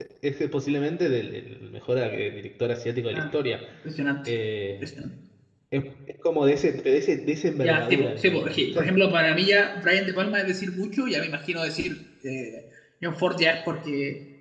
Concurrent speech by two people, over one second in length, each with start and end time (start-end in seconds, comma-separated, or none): 7.6-8.9